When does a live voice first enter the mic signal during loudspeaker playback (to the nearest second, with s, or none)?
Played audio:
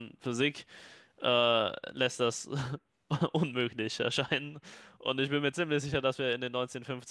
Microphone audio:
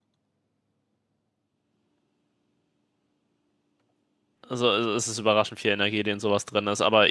4 s